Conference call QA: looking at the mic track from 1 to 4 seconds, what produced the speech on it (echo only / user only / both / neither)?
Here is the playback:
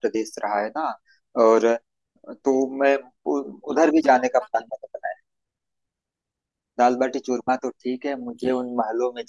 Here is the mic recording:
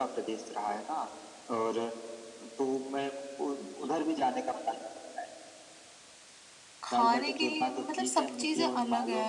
echo only